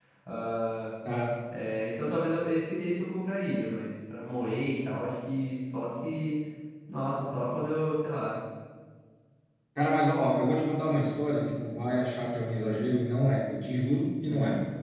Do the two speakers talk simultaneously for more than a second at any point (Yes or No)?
No